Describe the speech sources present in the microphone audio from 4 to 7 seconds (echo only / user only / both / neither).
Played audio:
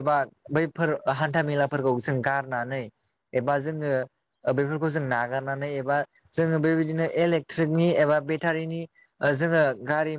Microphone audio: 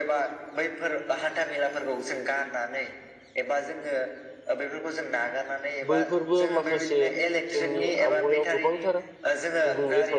both